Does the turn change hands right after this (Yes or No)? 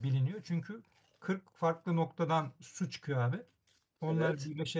No